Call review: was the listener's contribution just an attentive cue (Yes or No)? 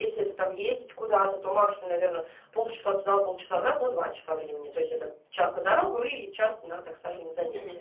No